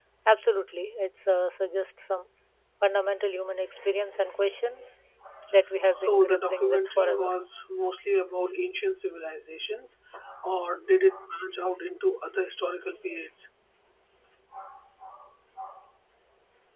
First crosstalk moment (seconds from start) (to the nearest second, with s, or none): 6 s